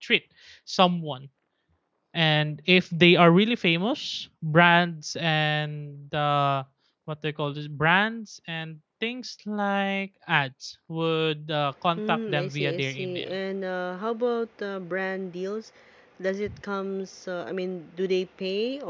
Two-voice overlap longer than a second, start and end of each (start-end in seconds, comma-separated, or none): 12.0-13.4